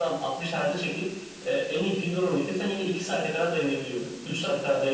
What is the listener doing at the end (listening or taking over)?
listening